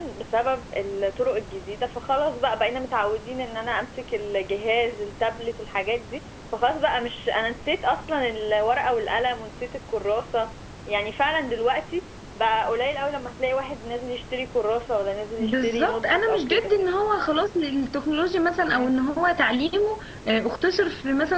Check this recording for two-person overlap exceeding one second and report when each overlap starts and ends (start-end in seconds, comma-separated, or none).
15.4-16.7